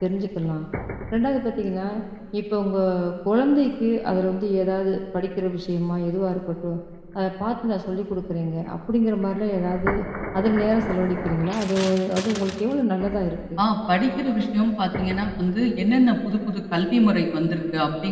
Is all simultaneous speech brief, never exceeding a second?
Yes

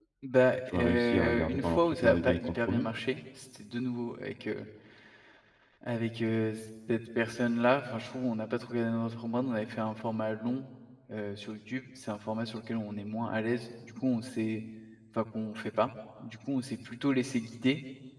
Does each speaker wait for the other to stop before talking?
No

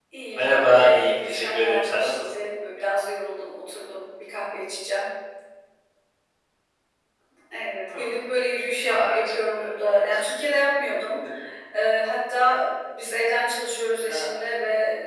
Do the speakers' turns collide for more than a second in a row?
Yes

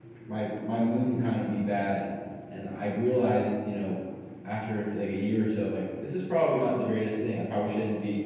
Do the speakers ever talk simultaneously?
No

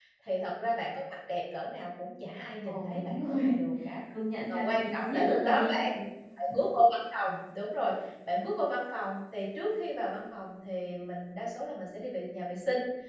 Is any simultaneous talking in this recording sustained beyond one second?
Yes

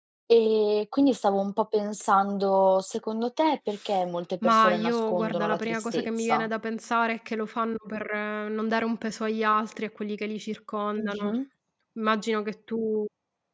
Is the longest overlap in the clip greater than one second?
Yes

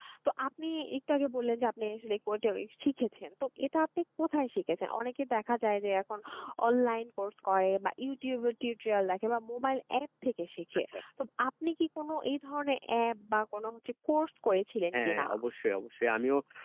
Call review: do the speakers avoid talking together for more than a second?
Yes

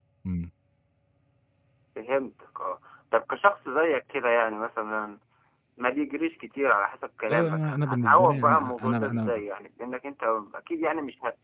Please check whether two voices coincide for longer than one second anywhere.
Yes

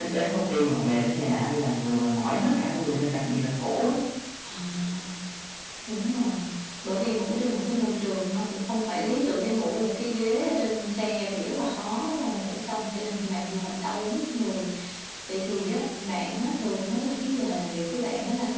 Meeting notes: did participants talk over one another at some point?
No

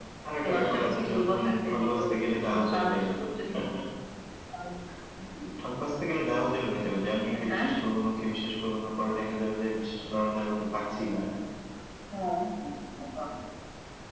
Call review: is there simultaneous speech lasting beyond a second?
Yes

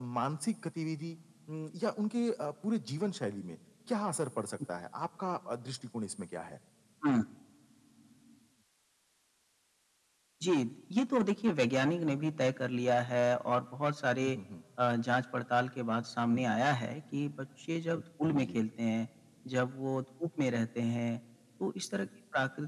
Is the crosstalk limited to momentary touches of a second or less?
Yes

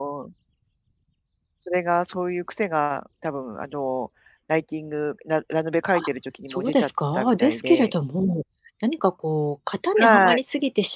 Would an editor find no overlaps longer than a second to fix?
No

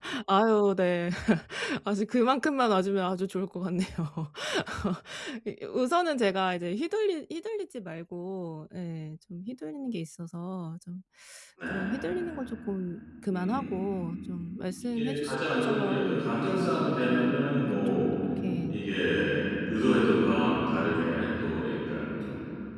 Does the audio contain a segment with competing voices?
Yes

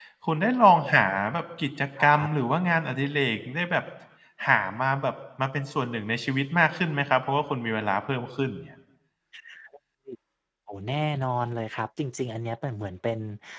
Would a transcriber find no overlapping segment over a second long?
Yes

